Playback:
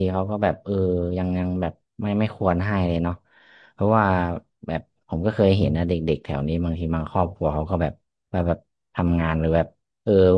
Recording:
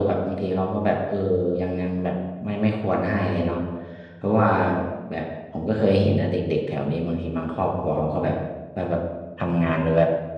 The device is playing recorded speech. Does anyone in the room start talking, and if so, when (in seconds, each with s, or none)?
none